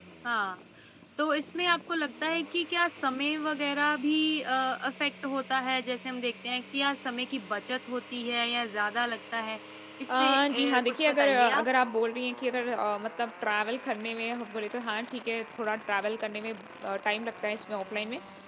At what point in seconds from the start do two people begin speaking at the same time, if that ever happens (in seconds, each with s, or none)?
10.1 s